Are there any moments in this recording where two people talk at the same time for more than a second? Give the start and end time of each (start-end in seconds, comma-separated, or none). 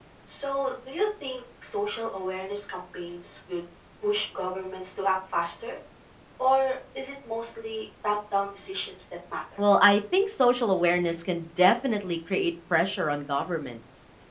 none